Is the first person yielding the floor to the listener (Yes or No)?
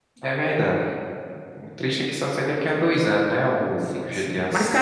Yes